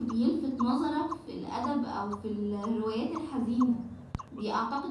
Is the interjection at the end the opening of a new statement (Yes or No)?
No